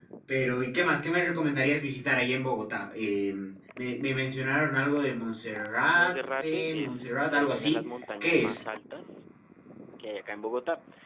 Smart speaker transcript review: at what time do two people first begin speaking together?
6 s

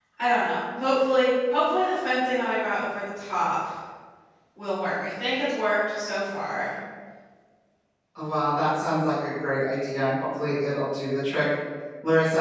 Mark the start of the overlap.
none

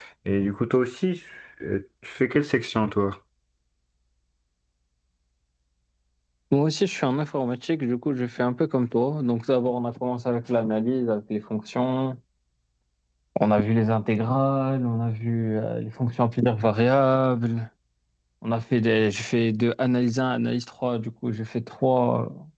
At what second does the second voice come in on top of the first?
none

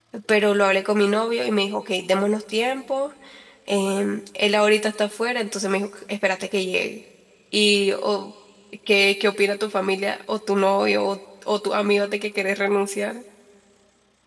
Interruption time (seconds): none

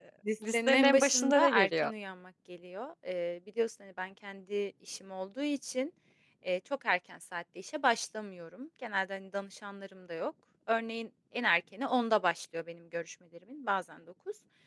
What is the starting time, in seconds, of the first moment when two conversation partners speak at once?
1 s

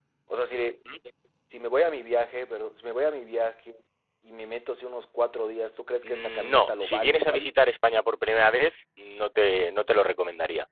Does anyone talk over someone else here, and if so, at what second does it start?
6 s

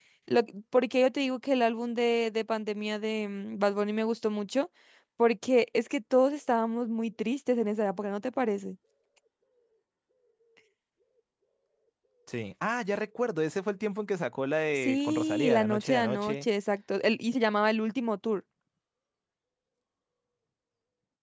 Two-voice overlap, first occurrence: 15 s

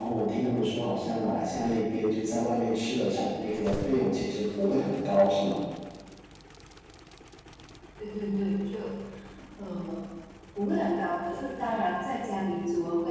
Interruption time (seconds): none

